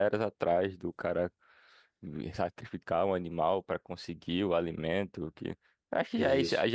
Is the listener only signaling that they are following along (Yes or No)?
Yes